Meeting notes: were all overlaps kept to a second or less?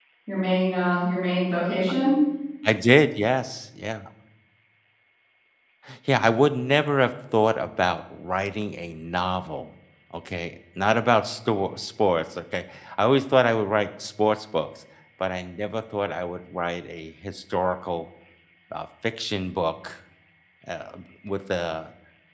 Yes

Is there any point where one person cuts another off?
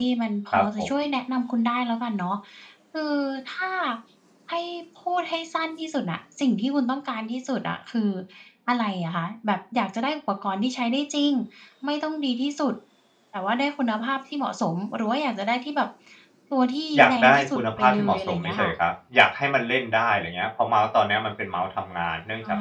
Yes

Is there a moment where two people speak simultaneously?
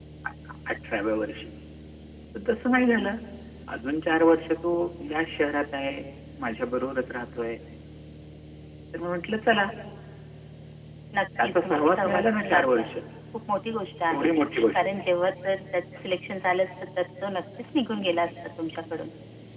Yes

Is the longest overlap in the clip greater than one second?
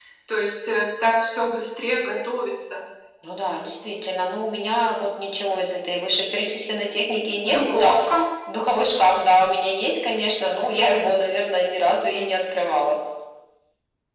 No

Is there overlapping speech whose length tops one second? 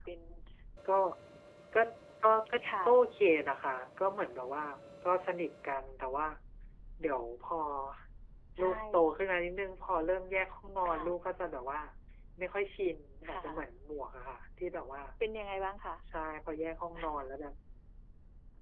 No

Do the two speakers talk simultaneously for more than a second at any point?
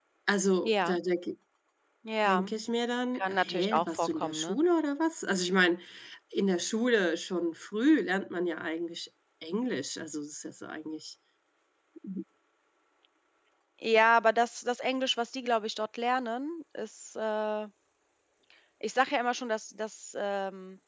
Yes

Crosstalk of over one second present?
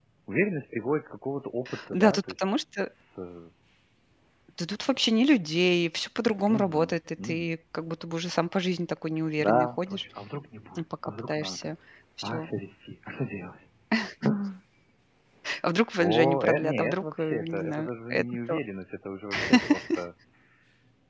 Yes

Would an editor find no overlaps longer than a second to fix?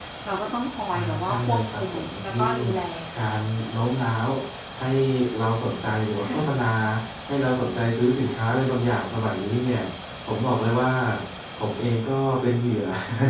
No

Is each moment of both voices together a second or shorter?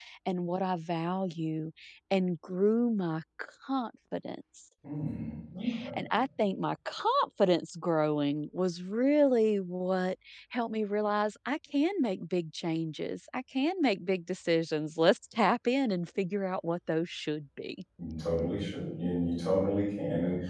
Yes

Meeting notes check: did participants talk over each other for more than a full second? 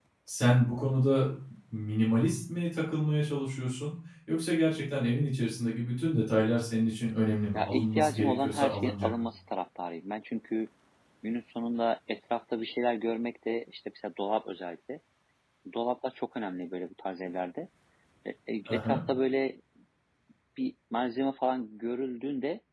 Yes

